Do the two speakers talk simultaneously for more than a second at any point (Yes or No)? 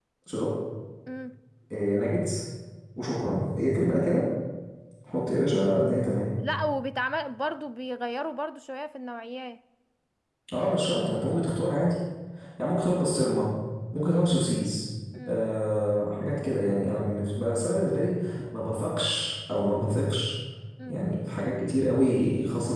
No